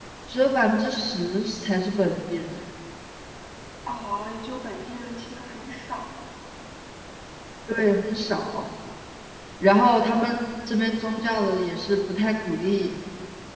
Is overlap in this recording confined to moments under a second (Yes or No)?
Yes